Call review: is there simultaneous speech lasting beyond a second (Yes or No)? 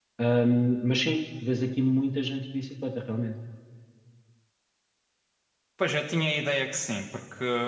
No